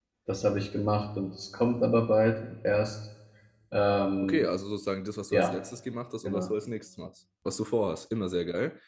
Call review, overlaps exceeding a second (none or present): none